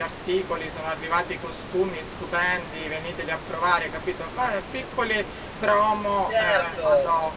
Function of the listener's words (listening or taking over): taking over